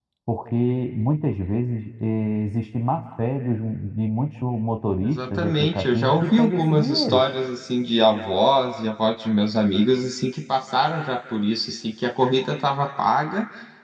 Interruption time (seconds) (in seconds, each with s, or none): 5.0 s